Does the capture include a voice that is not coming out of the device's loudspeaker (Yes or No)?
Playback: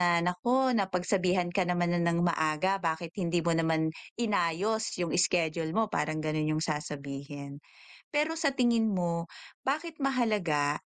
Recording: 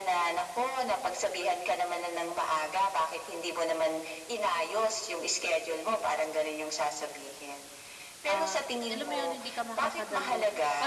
Yes